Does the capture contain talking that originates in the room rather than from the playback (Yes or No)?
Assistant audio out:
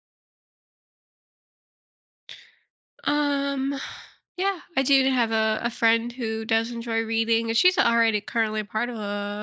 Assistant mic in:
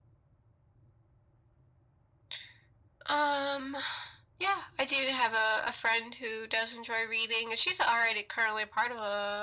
No